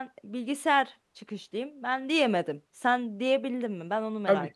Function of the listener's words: taking over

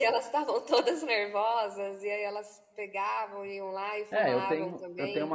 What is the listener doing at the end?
taking over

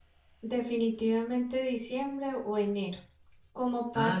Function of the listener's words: listening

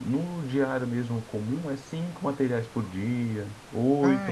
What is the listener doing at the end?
listening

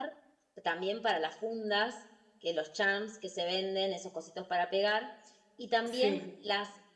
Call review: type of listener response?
listening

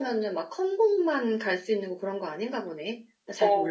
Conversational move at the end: taking over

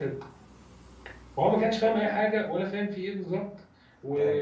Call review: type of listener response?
listening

